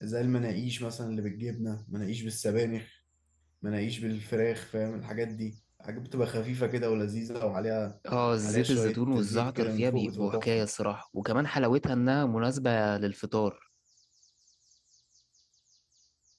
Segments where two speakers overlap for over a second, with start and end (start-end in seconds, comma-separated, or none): 8.4-10.7